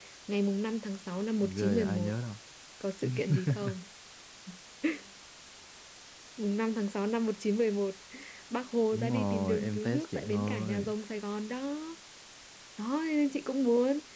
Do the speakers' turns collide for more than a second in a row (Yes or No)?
Yes